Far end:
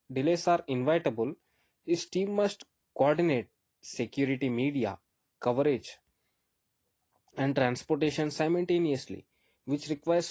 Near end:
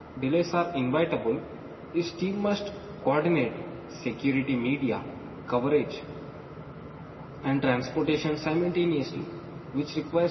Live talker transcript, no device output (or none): none